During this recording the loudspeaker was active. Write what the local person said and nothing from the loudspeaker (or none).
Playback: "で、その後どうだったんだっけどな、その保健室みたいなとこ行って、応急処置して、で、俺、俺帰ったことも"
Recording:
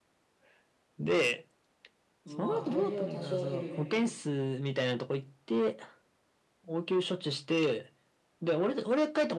まあ、体重は多少減るね。